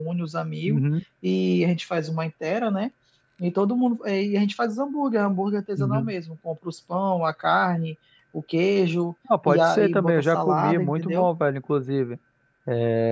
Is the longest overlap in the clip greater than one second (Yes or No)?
Yes